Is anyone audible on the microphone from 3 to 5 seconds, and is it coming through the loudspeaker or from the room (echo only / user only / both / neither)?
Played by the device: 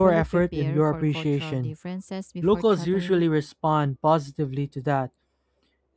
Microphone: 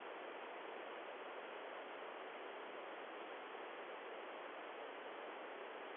neither